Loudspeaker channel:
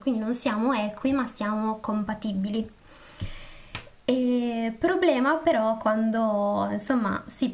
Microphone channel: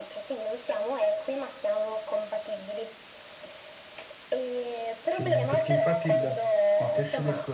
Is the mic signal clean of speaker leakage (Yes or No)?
No